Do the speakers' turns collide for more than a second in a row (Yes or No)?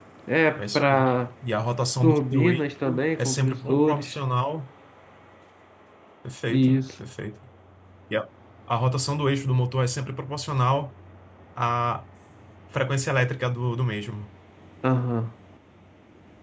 Yes